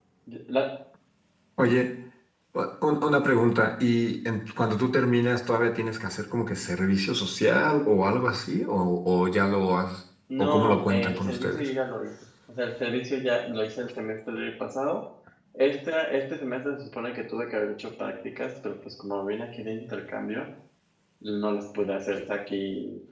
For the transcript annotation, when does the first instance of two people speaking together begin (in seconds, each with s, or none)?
10.3 s